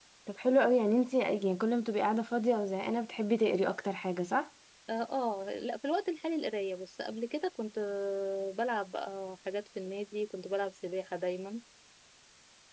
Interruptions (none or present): none